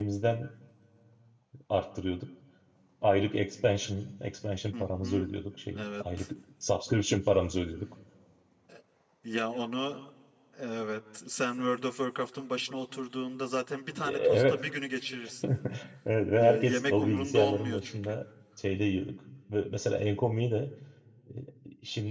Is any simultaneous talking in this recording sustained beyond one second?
Yes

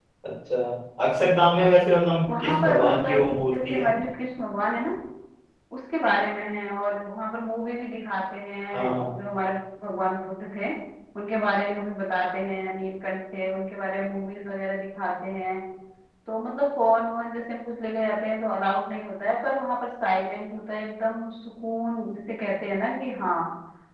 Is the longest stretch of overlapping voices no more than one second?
No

